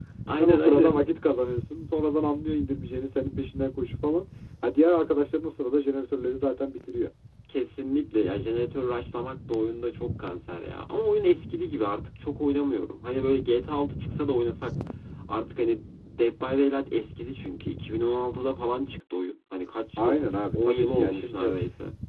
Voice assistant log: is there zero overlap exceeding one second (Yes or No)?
No